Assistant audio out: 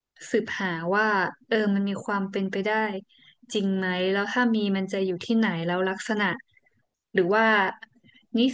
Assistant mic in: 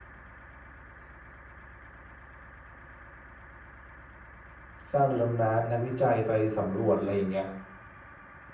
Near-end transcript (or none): สร้างเรือดำน้ำมีนักวิจัยไปสำรวจอะไรอย่างเงี้ย